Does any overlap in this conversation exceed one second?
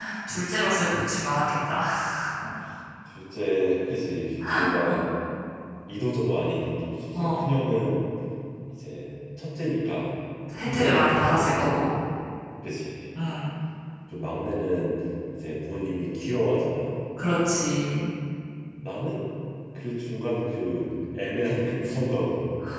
Yes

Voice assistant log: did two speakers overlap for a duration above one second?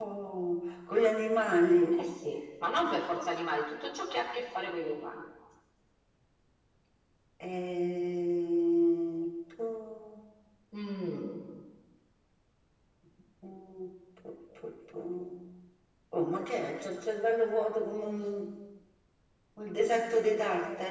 No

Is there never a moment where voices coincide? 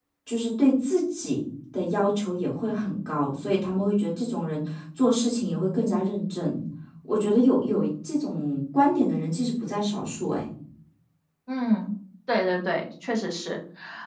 Yes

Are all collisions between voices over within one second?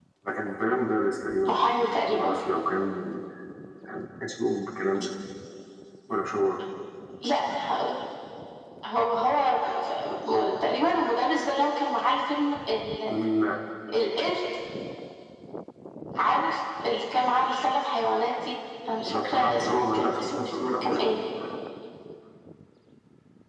No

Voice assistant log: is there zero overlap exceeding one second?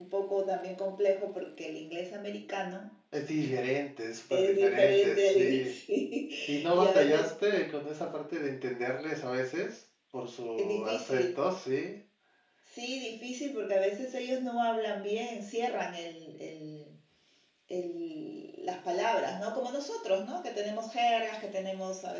No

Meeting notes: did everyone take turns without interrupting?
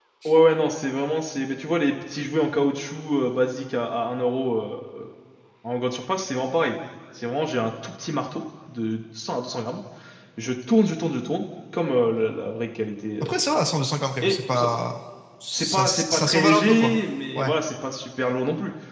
No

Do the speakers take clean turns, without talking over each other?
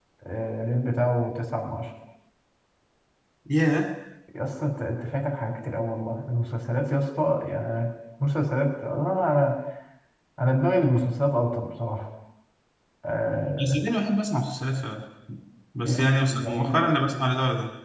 No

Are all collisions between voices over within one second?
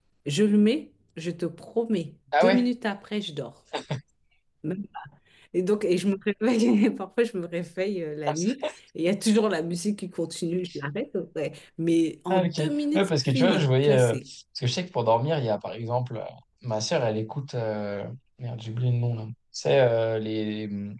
No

